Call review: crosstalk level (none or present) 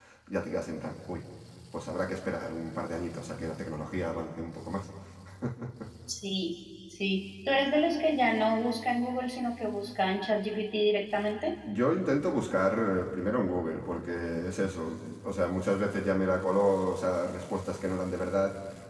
none